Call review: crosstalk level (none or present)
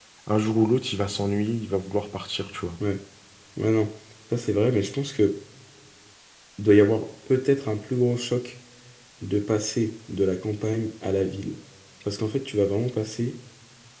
none